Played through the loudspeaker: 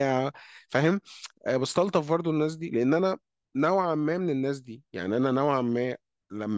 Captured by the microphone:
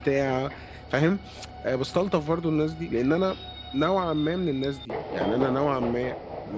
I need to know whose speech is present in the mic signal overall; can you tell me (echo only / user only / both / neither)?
echo only